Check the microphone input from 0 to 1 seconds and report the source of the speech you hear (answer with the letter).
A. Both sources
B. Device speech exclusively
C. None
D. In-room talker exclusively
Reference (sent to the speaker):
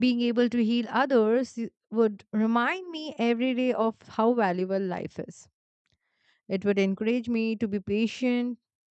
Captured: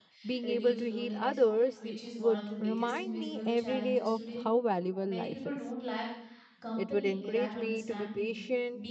A